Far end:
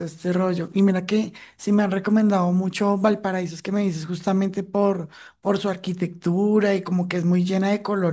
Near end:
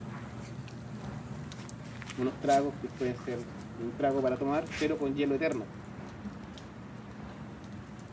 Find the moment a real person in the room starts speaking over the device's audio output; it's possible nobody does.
2 s

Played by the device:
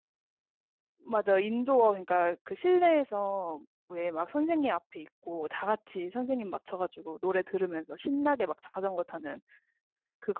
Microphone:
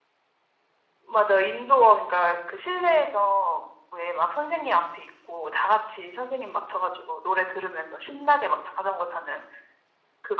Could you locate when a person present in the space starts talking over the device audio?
none

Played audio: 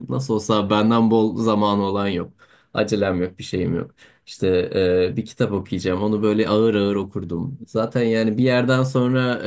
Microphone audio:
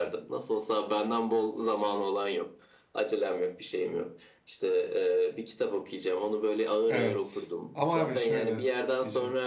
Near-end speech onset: 7 s

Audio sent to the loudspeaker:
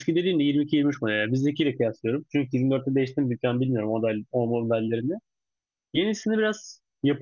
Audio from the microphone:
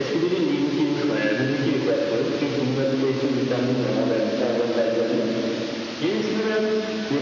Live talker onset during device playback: none

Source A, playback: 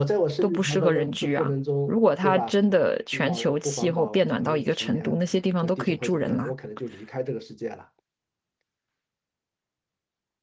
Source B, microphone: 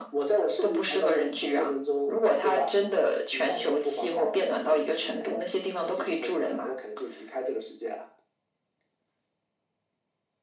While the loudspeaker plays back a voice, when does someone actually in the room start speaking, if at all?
none

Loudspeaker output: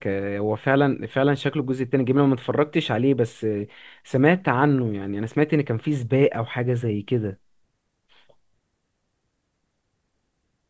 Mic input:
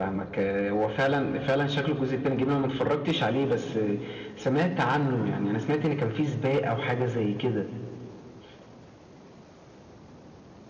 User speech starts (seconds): none

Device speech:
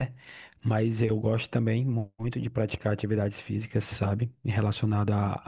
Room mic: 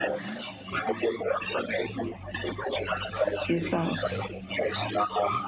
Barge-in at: 3 s

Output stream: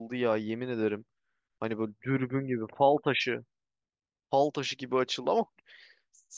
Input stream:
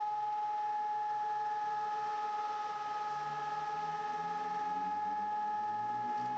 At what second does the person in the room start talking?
none

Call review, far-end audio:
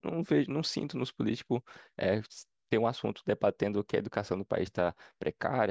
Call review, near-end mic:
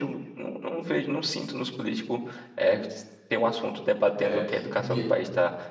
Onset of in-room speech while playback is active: 4 s

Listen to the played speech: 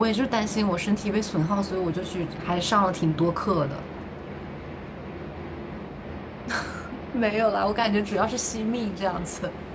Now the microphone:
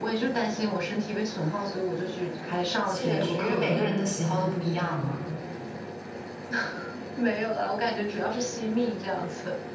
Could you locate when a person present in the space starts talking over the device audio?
3 s

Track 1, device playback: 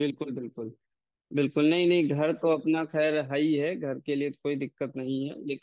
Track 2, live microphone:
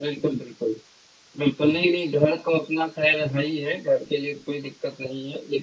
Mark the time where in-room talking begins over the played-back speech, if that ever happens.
none

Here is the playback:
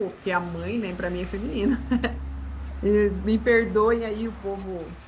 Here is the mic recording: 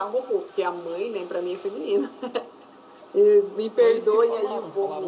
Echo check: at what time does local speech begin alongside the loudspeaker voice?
4 s

